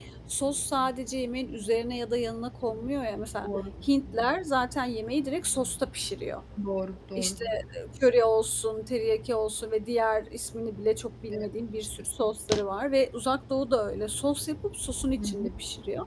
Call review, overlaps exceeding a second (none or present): none